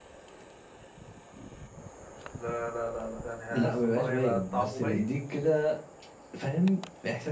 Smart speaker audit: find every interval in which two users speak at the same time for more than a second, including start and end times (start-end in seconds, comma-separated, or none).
3.5-5.1